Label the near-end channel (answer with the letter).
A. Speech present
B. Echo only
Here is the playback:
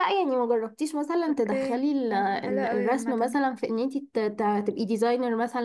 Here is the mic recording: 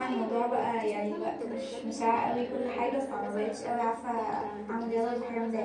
A